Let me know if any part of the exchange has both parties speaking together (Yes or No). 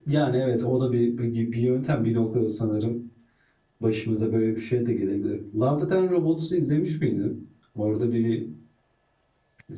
No